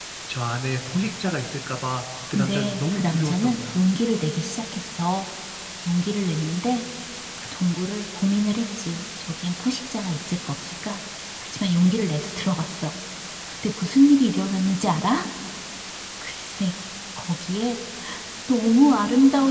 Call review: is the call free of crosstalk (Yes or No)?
No